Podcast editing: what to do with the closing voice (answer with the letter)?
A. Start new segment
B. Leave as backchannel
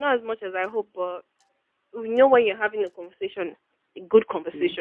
B